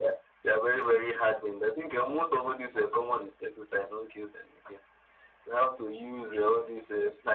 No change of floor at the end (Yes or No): Yes